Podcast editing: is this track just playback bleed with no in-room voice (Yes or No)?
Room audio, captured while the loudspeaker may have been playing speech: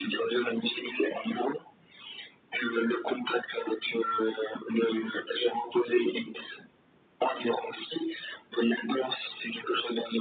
Yes